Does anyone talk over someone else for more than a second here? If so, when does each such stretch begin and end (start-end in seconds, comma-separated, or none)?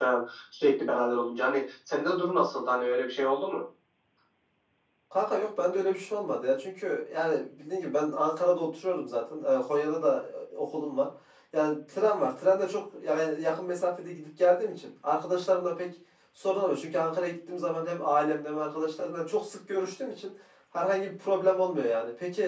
none